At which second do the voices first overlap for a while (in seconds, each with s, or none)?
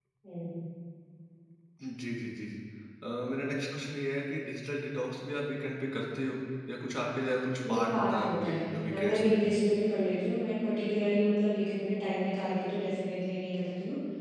7.6 s